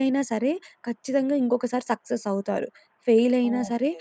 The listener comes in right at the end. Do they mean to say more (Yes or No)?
No